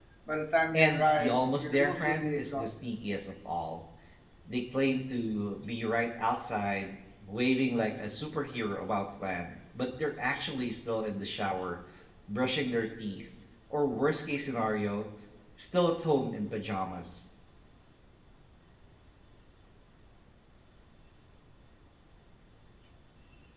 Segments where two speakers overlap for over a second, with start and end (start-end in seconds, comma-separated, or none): 0.7-2.7